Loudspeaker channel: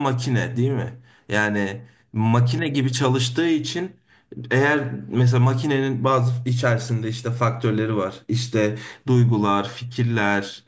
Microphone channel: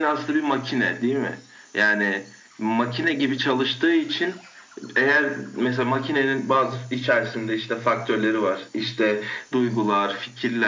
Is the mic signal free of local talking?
Yes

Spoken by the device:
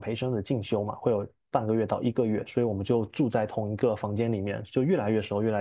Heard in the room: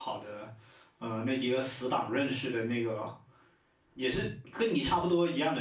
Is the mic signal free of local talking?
No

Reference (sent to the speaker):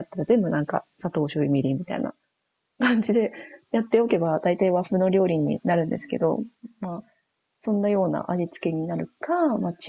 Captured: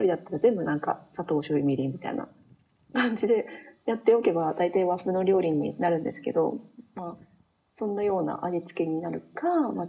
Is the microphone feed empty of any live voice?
Yes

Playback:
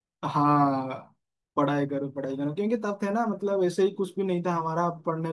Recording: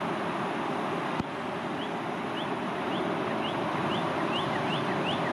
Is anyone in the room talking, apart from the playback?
No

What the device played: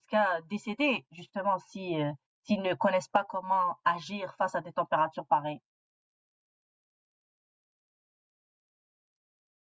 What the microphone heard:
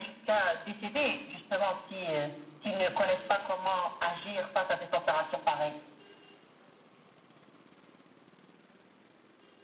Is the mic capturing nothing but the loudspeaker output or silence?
Yes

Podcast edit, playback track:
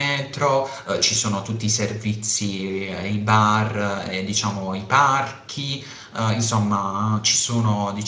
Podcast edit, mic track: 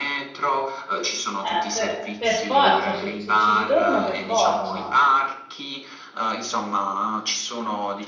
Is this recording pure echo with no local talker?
No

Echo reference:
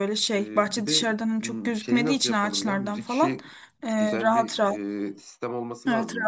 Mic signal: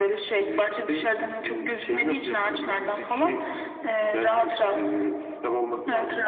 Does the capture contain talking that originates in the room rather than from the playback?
No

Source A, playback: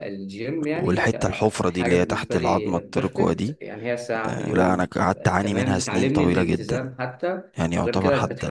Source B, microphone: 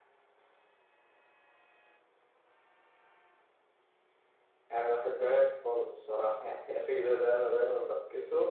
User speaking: Yes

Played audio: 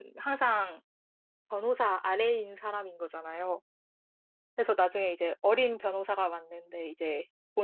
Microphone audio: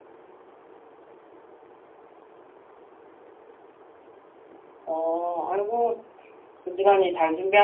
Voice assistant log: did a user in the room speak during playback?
Yes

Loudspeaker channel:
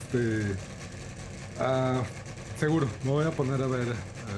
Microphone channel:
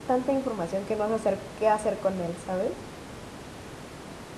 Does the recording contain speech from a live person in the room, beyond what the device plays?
Yes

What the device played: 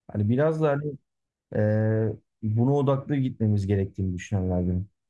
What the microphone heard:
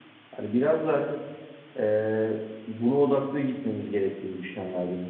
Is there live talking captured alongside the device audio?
No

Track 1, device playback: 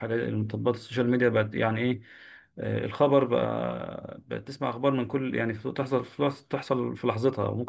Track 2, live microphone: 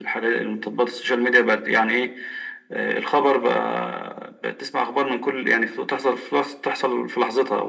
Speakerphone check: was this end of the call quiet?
Yes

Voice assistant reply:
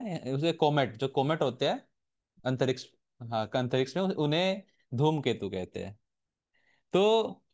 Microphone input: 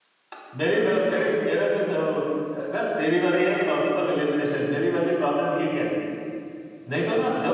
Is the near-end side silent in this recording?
No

